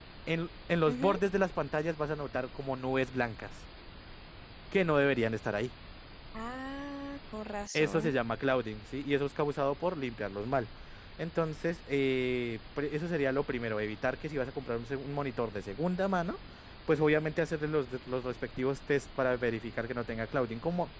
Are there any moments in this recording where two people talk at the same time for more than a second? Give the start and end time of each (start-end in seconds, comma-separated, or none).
none